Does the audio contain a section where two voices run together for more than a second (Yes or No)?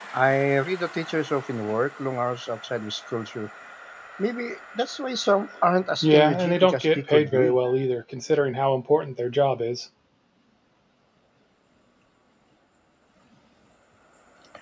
Yes